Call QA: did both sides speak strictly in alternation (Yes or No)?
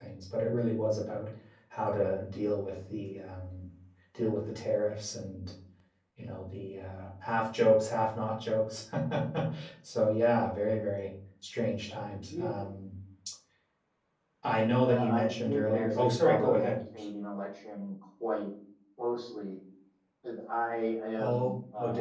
No